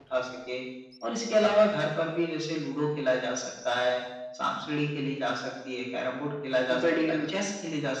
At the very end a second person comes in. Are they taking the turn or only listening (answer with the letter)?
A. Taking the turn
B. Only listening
B